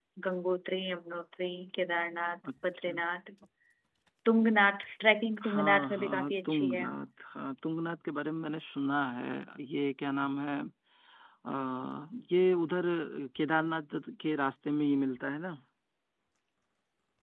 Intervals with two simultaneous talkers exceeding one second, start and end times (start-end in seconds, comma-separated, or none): 5.5-6.8